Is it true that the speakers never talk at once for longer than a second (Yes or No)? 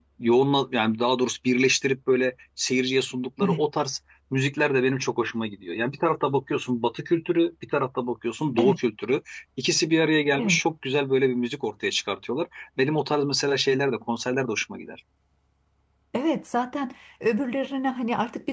Yes